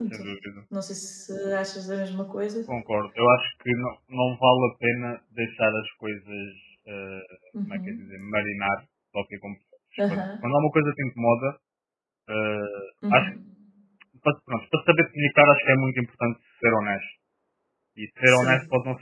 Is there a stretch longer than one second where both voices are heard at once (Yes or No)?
No